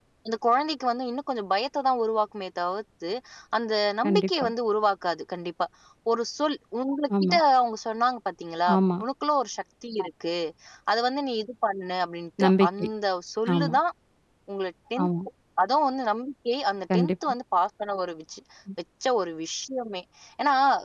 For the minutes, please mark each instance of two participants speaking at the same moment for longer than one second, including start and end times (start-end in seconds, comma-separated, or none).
none